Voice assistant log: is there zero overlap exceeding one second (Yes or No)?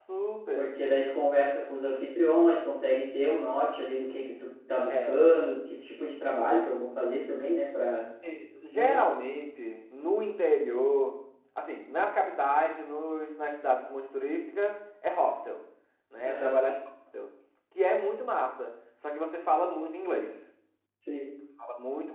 Yes